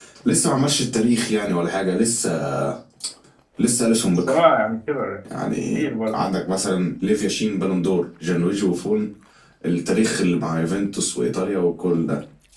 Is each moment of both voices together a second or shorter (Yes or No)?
Yes